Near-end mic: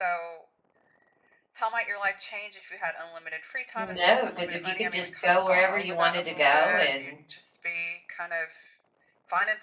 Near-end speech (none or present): present